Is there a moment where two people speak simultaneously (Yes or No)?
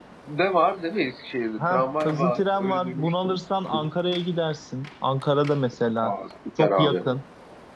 Yes